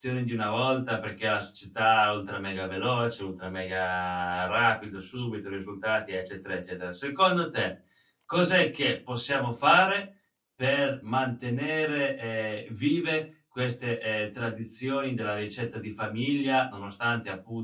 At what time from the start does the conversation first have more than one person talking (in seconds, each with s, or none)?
none